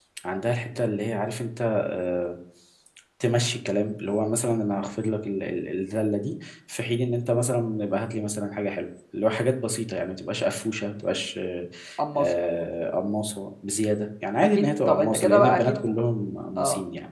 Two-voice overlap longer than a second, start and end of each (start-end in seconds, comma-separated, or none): 14.4-15.9